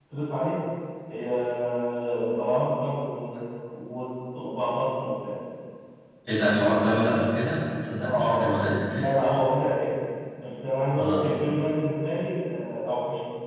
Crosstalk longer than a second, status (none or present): none